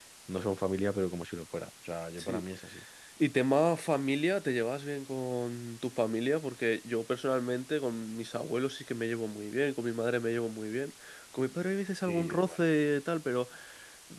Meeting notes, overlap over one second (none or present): none